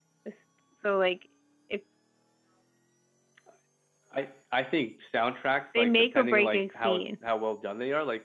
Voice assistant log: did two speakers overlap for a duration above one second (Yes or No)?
Yes